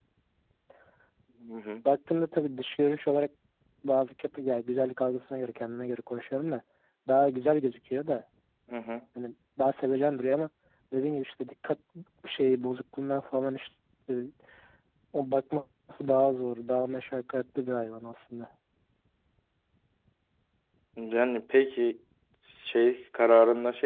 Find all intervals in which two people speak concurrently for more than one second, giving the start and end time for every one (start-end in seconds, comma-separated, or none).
none